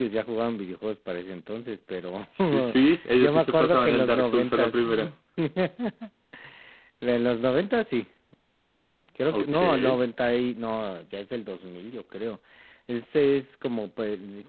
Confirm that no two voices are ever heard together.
No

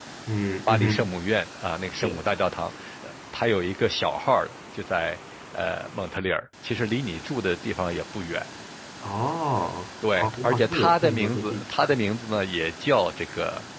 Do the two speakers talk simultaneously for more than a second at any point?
Yes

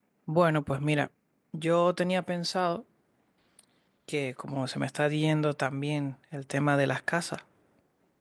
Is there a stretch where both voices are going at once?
No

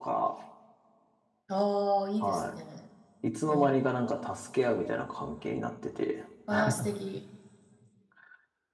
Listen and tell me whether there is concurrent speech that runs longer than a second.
No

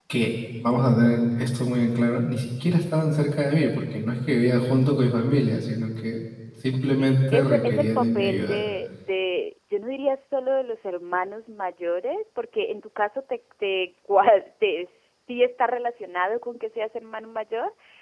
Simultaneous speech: Yes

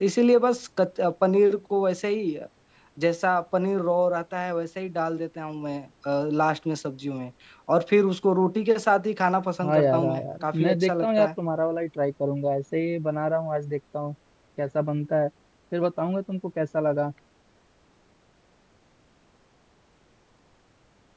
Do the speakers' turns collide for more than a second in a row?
Yes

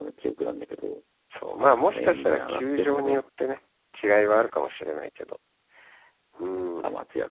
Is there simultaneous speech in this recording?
Yes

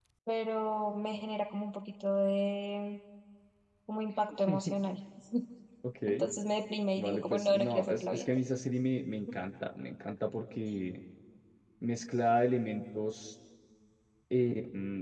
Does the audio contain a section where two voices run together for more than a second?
Yes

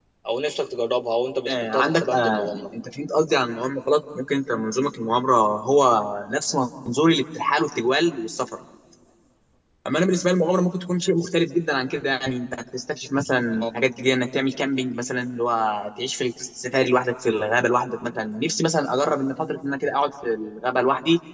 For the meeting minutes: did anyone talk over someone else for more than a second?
Yes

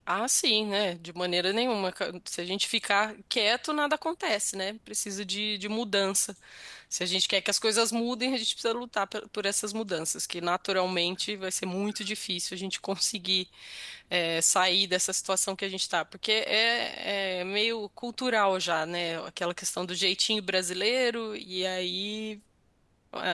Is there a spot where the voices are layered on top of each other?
No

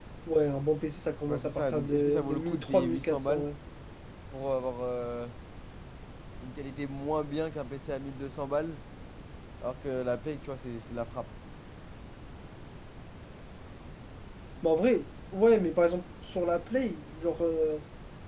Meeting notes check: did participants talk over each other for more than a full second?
Yes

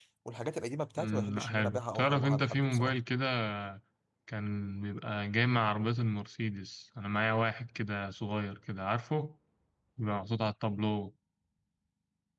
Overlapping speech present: Yes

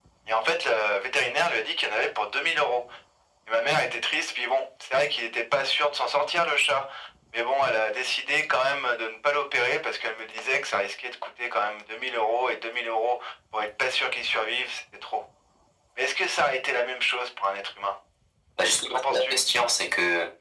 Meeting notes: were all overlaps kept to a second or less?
Yes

